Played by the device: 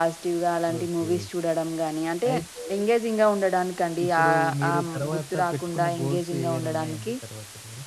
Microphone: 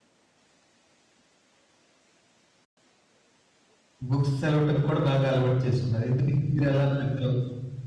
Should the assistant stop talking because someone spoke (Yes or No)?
Yes